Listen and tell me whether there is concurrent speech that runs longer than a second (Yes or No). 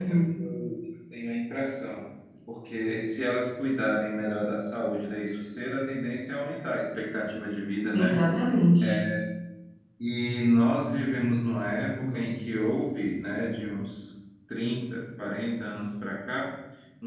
No